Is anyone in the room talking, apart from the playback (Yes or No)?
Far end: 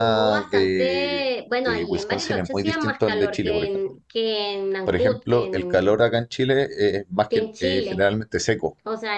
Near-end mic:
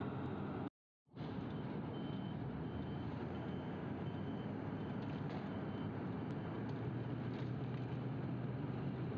No